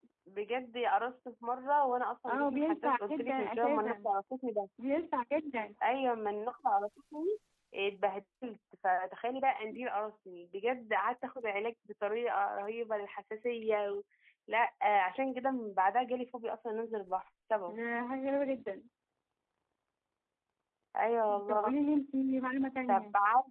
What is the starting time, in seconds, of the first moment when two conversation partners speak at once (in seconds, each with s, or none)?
2.3 s